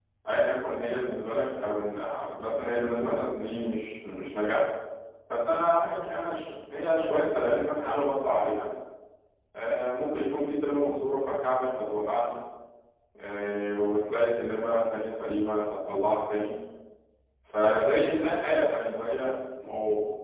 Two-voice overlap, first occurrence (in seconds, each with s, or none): none